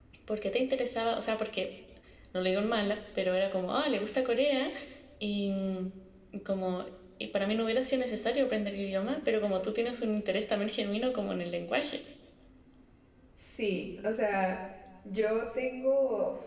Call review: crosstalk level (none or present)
none